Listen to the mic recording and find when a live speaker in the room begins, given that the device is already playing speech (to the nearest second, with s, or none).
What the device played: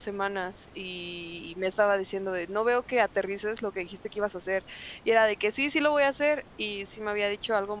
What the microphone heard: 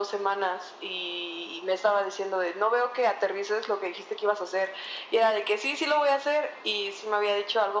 none